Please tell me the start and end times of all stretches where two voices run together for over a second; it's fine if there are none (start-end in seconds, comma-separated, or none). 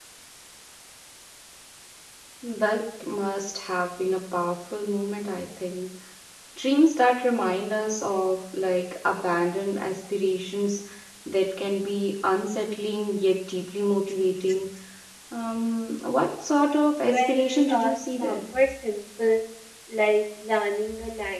17.0-18.4